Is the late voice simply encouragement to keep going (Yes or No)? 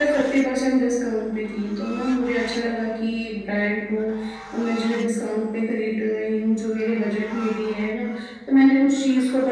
Yes